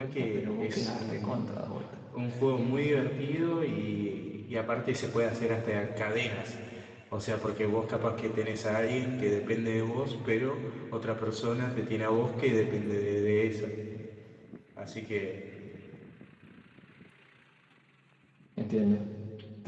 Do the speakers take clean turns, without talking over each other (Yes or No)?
No